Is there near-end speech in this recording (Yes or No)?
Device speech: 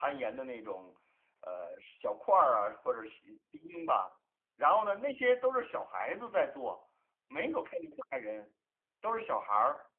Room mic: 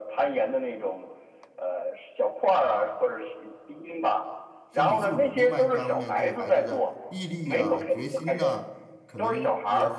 Yes